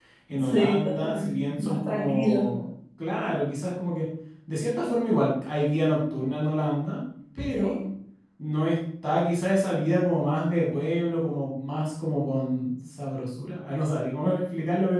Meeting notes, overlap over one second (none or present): present